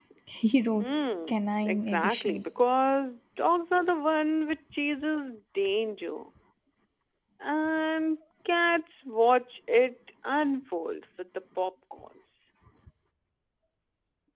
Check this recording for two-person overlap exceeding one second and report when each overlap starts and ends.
0.8-2.4

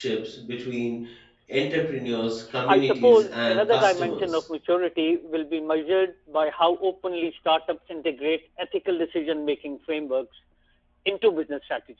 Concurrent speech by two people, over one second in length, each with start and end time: 2.7-4.4

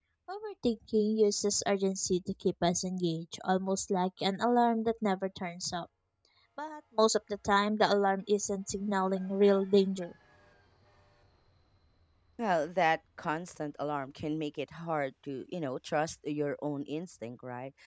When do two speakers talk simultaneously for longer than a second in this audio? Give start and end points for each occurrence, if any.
none

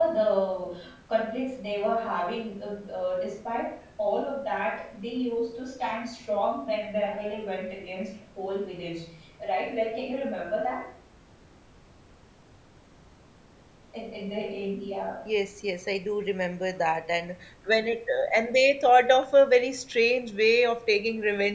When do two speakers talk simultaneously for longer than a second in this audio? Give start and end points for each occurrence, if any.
none

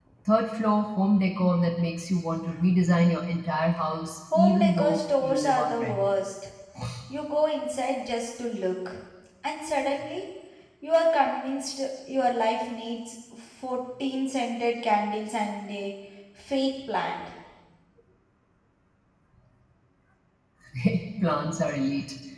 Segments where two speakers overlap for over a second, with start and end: 4.3-6.0

